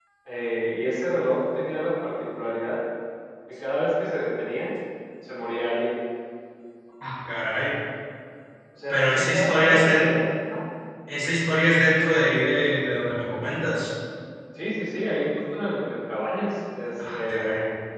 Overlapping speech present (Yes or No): Yes